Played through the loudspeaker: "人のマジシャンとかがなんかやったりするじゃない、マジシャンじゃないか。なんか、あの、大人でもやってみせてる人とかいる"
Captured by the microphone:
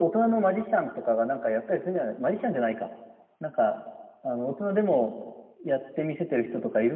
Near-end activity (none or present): none